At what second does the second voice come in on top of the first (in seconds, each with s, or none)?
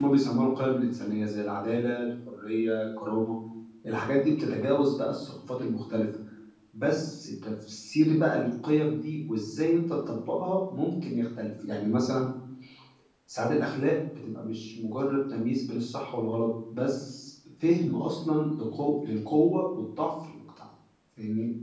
none